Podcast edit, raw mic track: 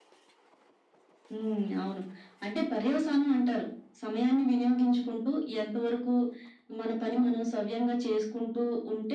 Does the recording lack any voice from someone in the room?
Yes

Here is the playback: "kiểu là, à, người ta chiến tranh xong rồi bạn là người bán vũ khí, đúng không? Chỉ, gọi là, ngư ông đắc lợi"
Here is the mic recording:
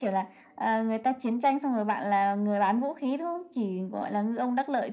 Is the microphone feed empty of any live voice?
Yes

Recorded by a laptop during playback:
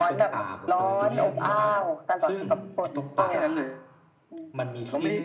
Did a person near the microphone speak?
Yes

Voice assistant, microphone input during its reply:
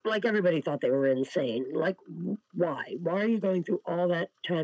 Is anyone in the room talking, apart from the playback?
No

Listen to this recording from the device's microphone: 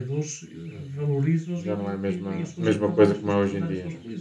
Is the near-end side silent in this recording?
No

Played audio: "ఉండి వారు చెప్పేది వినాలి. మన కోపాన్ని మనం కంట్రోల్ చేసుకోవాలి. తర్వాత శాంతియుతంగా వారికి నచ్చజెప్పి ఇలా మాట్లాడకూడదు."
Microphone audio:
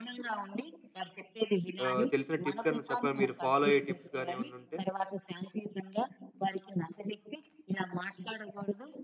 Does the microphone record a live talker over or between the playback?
Yes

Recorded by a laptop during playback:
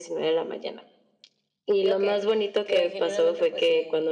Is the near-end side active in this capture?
Yes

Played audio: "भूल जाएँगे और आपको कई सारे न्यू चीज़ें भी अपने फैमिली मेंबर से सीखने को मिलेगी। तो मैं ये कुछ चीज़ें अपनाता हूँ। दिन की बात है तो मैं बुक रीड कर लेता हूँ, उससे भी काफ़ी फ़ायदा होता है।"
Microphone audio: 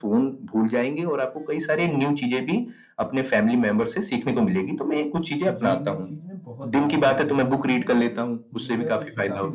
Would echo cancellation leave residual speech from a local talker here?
Yes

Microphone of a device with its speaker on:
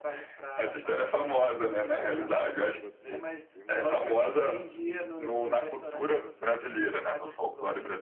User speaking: Yes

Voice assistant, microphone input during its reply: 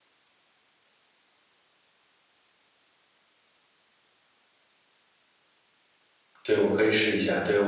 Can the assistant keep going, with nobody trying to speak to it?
No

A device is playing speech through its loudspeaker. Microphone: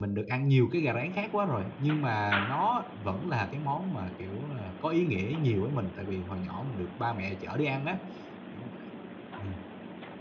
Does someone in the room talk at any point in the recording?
Yes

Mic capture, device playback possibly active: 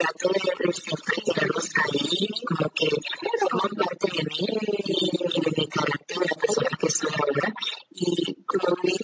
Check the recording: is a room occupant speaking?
No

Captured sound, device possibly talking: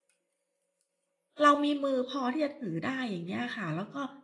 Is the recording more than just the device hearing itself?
Yes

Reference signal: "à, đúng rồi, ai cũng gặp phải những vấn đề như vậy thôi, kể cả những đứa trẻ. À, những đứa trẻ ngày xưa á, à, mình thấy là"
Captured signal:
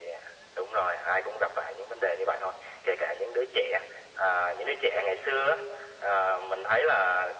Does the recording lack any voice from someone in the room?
Yes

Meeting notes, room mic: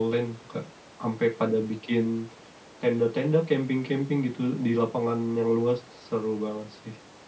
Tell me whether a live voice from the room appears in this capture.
No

